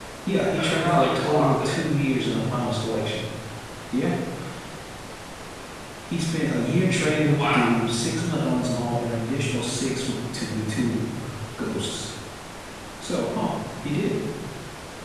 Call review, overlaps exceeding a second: present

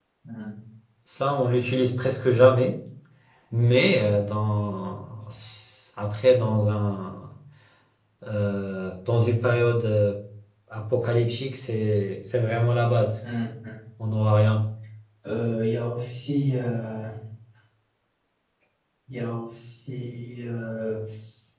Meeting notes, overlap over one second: none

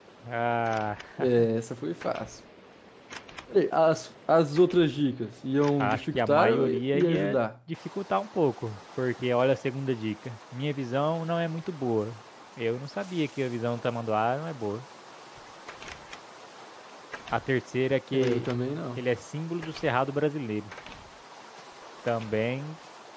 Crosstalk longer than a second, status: present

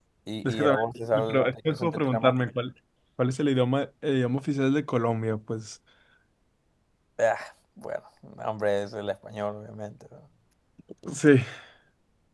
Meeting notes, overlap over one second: present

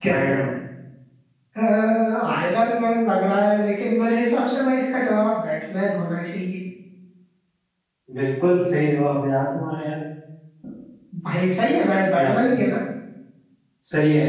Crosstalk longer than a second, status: none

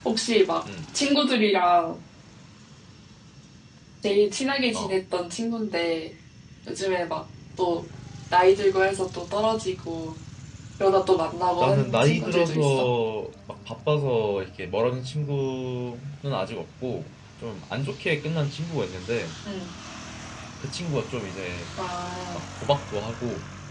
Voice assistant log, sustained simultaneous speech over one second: present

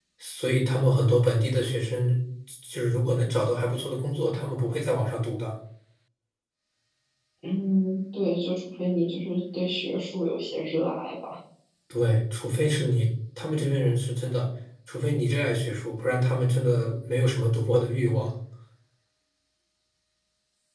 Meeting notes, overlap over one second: none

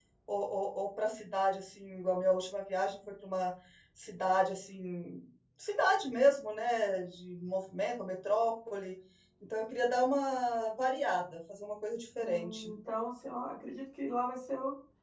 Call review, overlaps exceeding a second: none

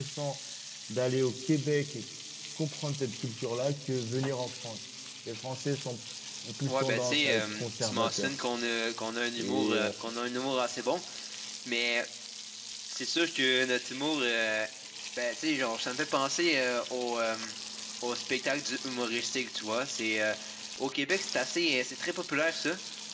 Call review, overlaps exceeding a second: present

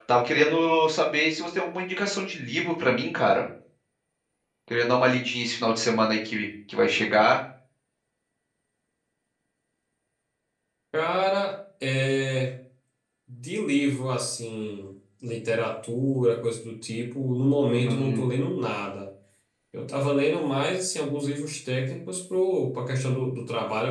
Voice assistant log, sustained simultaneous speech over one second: none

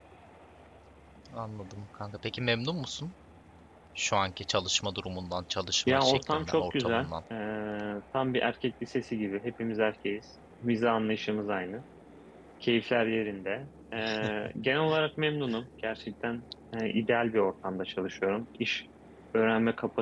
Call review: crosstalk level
present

